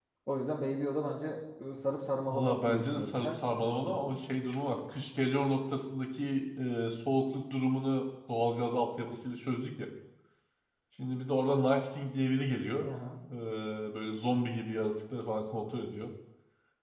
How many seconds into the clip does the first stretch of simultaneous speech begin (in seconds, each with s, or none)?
2.3 s